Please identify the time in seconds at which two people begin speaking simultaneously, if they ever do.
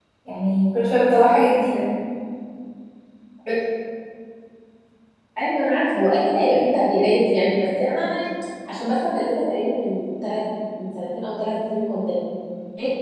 none

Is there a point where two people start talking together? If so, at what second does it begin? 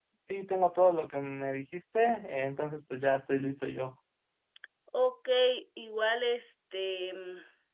none

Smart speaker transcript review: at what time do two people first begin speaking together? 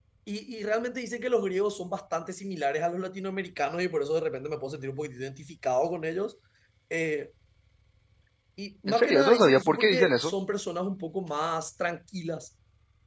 8.9 s

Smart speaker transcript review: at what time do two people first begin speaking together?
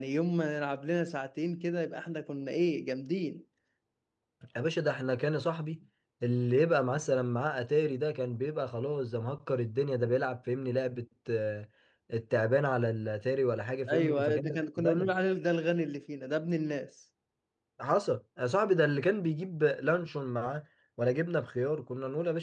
13.9 s

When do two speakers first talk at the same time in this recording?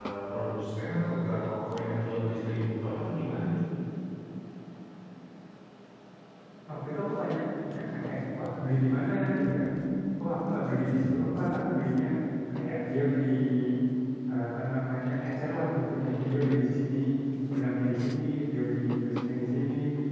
none

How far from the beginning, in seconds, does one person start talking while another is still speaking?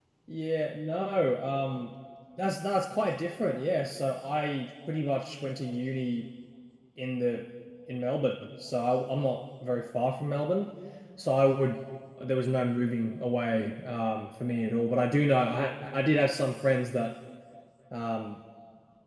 none

